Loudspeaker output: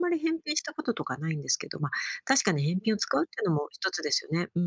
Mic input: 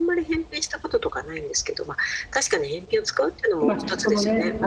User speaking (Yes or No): Yes